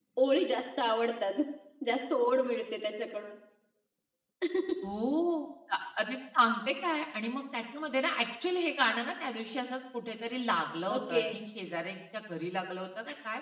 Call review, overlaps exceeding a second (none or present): none